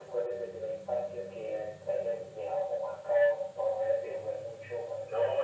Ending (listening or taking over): taking over